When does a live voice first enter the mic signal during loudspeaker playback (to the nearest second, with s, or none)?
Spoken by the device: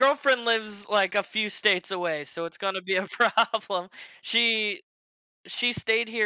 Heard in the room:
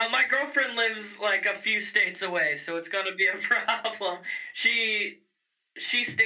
none